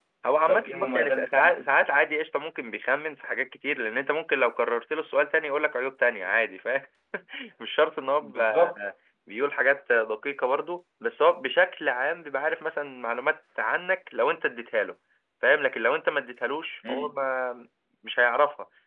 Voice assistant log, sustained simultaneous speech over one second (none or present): present